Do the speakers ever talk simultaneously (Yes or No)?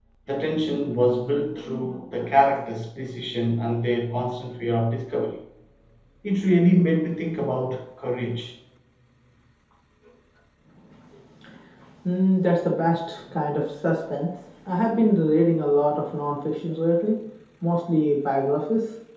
No